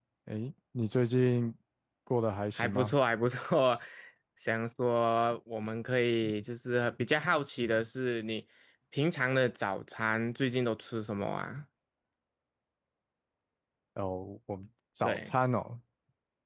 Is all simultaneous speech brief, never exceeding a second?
Yes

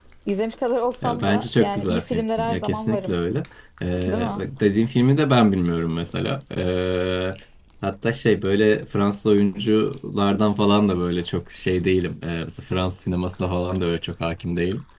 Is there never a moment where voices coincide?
No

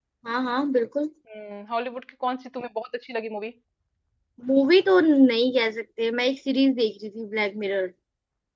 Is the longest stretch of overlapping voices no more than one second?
Yes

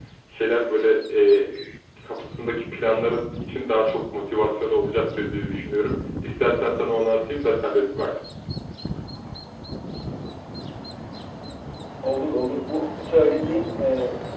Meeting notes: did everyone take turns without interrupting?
Yes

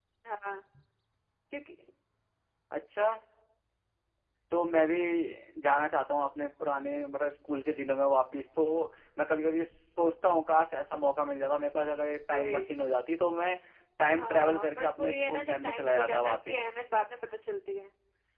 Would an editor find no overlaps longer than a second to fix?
No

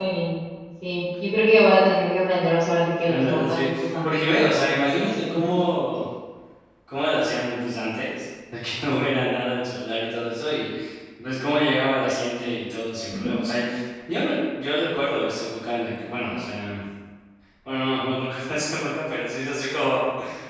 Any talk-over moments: Yes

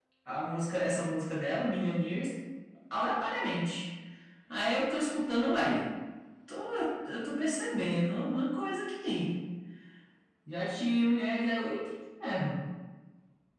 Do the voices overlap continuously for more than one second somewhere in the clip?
No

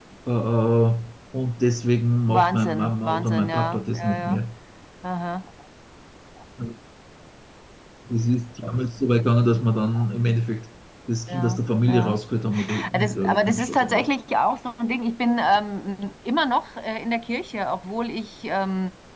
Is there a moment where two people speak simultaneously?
Yes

